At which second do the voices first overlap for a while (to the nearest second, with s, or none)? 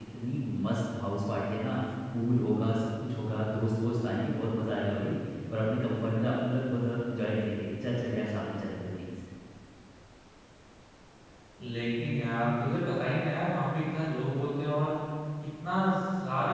none